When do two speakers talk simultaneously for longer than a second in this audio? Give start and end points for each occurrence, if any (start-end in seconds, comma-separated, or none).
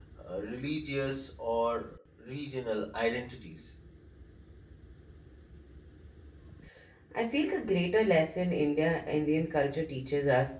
none